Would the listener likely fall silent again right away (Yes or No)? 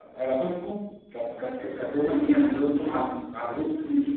Yes